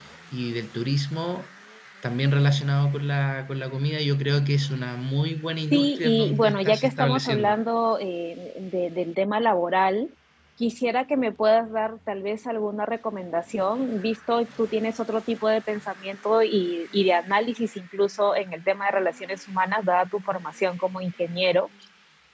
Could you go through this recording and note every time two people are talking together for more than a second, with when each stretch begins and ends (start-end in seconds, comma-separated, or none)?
5.7-7.6